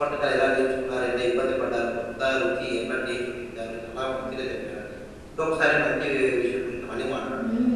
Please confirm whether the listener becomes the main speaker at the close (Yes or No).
Yes